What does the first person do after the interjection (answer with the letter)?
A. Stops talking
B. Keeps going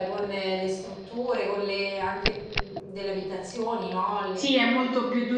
A